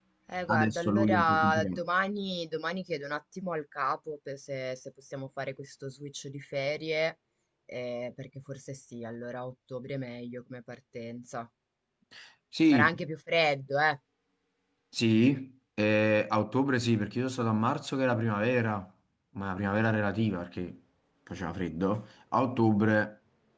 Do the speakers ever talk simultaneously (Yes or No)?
Yes